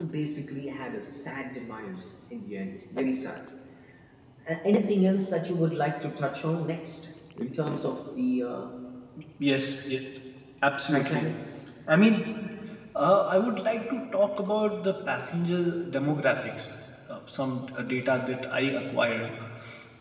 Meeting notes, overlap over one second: none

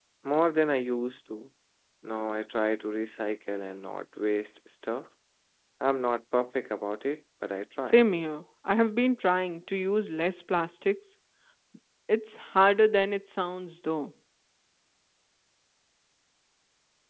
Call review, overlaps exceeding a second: none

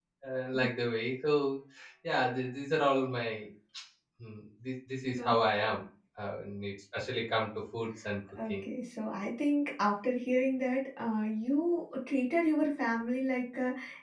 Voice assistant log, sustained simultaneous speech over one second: none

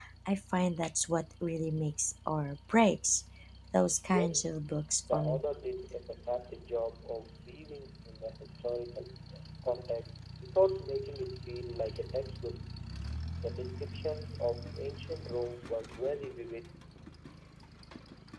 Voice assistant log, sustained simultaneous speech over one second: none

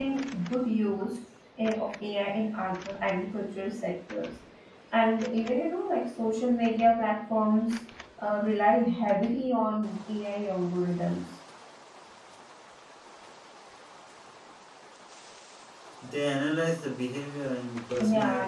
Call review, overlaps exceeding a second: none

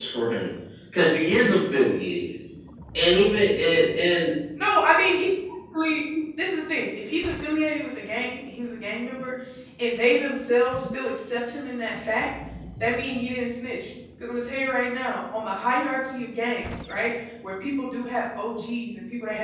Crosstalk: none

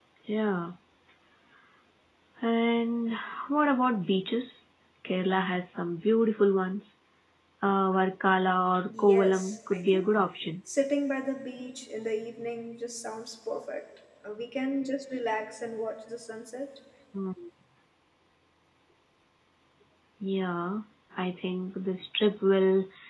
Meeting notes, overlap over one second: present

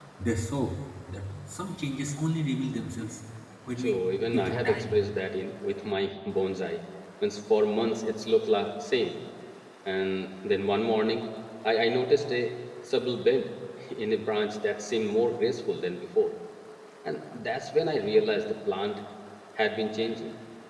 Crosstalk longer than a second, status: present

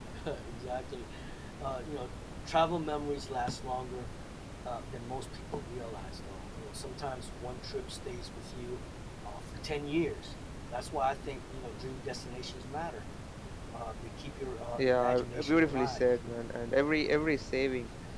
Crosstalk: present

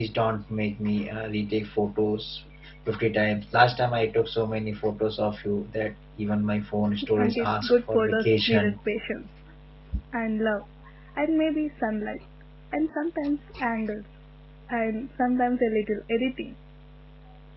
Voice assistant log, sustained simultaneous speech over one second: present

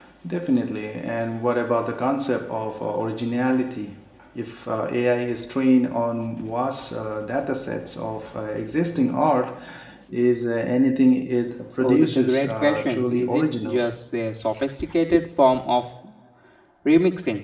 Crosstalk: present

